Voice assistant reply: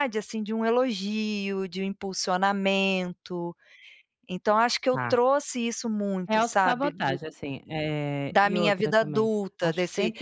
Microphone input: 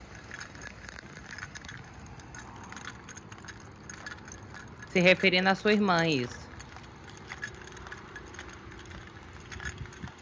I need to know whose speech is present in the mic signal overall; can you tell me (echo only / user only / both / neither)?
user only